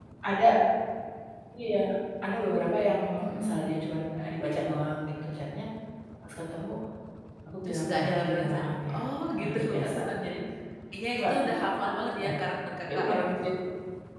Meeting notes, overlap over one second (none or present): present